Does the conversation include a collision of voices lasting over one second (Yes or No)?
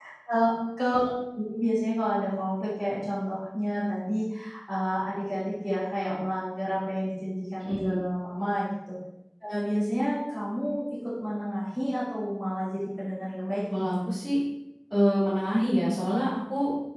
No